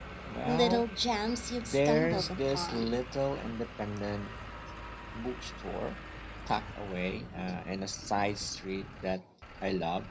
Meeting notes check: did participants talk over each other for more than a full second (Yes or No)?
Yes